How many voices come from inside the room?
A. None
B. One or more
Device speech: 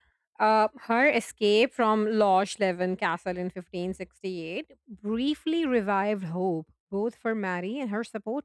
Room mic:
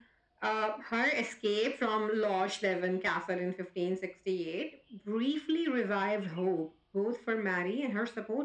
A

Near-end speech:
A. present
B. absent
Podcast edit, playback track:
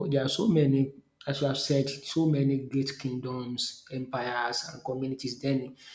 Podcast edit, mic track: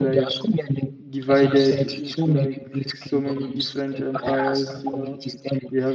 A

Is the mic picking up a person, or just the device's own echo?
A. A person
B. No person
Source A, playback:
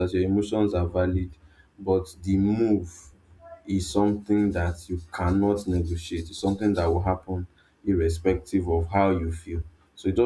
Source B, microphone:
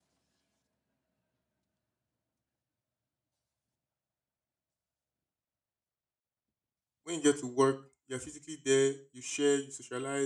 A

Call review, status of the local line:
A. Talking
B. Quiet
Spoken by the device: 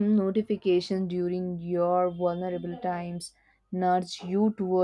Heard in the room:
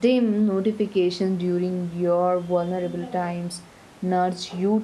B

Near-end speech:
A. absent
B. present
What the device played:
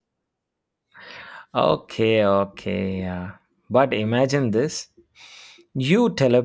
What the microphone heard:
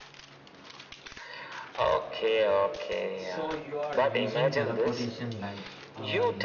B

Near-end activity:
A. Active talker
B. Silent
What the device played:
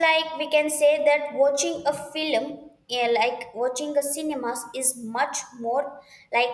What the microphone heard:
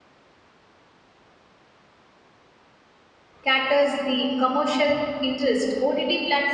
A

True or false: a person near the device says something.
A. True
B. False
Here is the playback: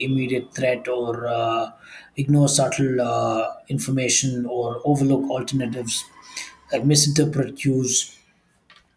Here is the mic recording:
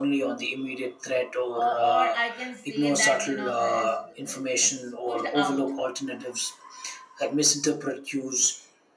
A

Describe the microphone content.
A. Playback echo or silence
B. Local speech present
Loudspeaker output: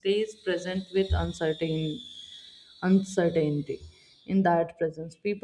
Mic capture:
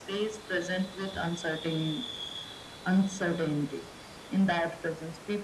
A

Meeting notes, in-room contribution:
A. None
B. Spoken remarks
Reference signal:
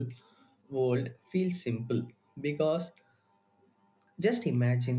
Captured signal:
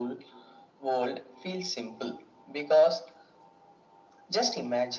A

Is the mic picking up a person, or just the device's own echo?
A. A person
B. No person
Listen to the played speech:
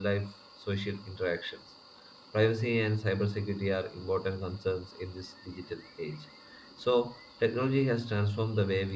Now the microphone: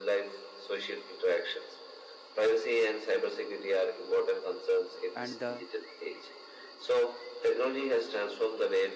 A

